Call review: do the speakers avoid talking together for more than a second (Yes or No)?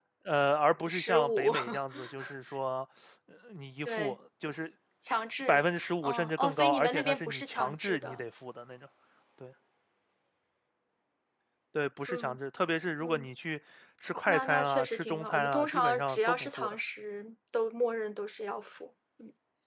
No